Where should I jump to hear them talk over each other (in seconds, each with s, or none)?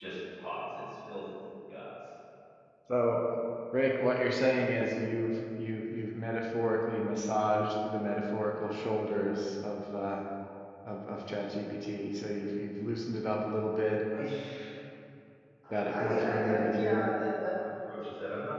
15.7 s